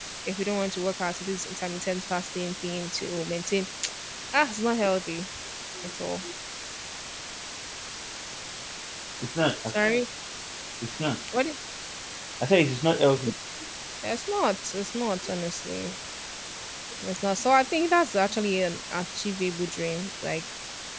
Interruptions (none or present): none